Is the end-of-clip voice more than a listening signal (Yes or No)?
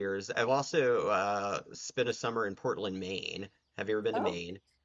Yes